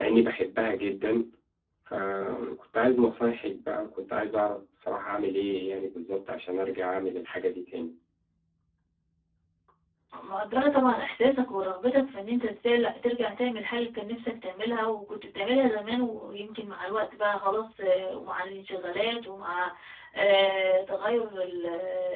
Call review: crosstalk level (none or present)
none